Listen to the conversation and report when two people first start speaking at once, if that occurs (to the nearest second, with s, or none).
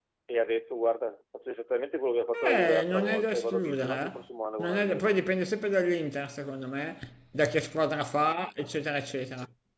2 s